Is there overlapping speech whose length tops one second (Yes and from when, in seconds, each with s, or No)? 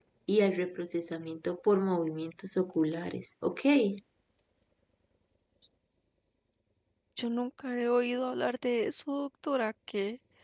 No